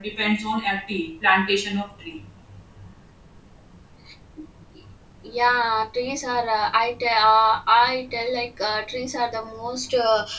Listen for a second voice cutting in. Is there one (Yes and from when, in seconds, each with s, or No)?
No